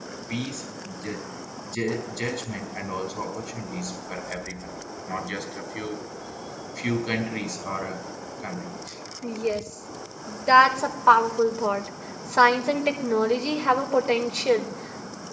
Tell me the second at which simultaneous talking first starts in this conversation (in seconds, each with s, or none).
none